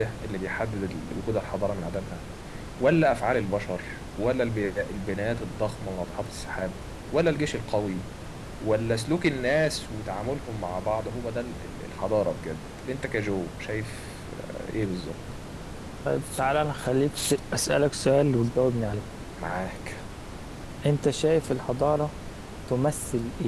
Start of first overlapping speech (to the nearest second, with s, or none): none